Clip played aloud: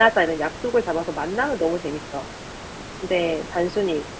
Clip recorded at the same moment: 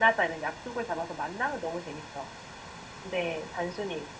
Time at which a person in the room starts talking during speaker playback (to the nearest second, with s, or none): none